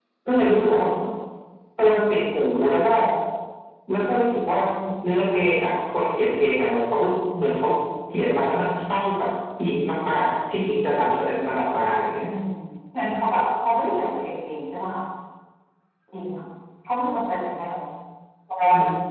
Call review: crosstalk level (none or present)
none